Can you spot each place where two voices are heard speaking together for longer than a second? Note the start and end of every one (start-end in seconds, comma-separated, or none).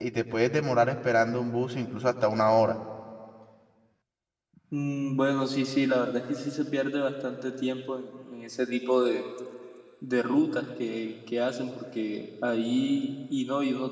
none